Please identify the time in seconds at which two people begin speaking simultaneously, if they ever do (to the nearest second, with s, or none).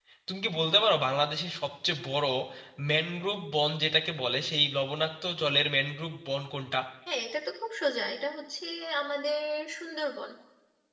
none